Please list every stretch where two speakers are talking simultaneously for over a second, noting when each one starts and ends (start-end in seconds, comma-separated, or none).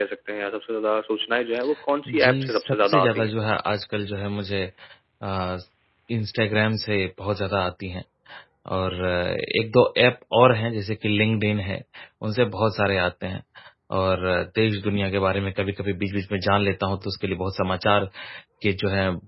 2.1-3.3